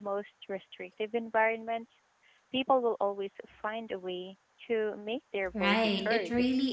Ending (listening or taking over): taking over